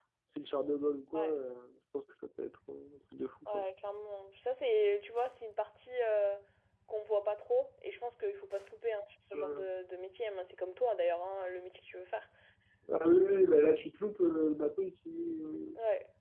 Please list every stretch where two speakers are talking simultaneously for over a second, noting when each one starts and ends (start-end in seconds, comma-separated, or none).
none